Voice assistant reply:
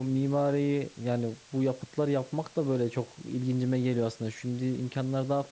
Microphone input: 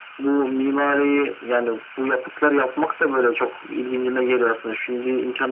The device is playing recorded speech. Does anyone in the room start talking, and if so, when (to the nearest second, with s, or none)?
none